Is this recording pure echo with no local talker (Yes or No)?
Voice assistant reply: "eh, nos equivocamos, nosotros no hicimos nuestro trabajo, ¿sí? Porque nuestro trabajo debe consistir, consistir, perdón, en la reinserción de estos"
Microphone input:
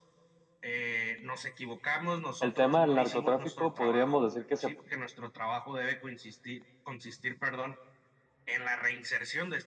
No